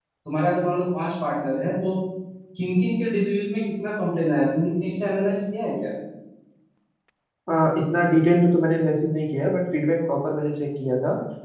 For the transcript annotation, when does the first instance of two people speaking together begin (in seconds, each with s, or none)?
none